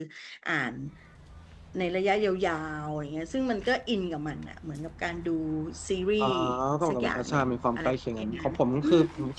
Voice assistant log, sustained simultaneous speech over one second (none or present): present